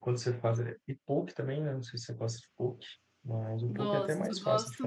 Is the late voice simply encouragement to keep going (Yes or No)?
No